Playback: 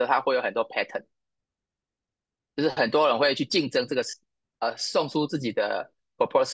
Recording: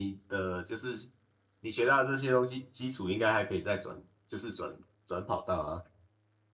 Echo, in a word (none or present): none